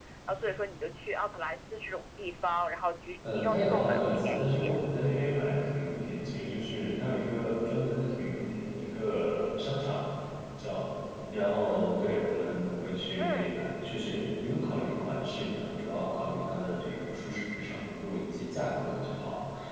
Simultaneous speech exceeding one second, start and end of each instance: 3.3-4.8

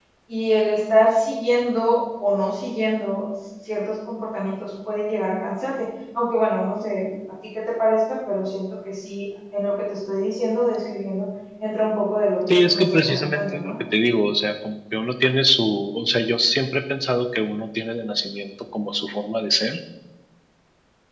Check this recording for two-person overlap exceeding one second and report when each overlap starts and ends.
12.5-13.7

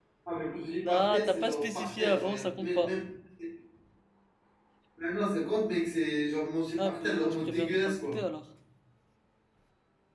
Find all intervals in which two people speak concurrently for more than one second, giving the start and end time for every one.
0.8-2.9, 6.8-8.2

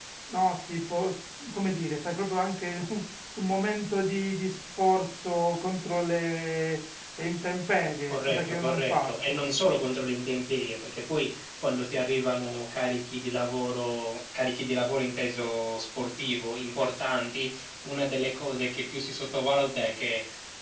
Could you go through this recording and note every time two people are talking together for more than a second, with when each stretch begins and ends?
8.1-9.4

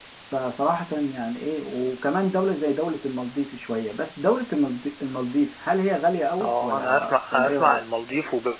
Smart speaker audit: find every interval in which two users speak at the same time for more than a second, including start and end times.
6.4-7.8

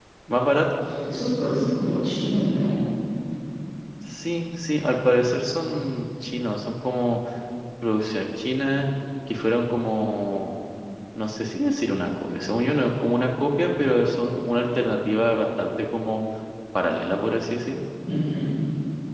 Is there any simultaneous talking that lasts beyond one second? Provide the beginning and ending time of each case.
none

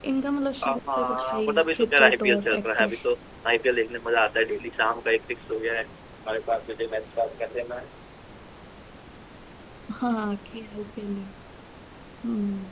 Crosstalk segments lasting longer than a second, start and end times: 0.6-2.9

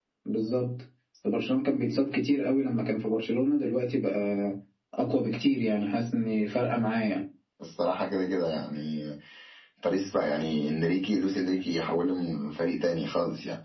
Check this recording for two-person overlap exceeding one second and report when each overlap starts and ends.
none

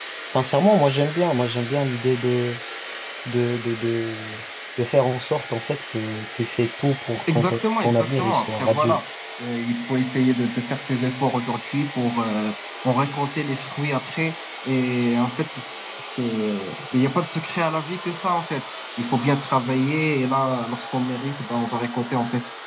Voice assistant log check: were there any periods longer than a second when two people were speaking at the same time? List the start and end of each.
7.3-9.0

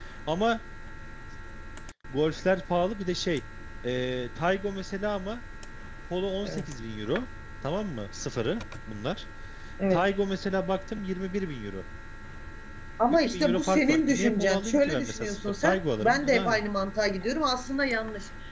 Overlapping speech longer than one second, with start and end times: 13.3-16.6

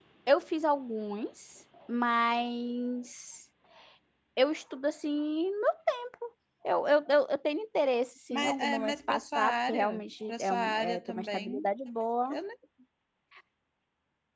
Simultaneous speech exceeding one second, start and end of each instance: 8.3-11.6

